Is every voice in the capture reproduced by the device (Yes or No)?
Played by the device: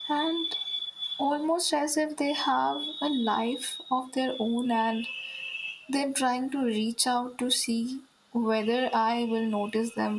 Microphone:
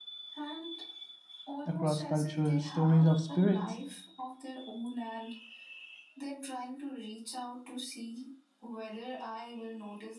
No